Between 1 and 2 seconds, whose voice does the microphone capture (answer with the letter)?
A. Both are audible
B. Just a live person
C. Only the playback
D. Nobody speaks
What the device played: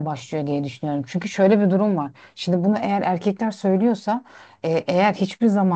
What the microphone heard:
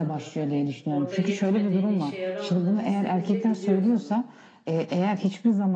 A